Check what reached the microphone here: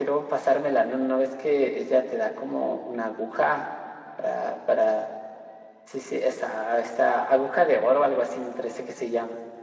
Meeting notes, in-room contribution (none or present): none